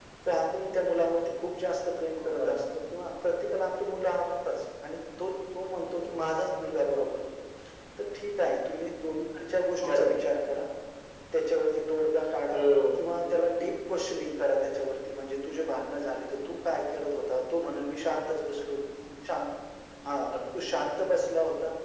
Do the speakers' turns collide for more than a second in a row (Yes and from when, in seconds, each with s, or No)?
No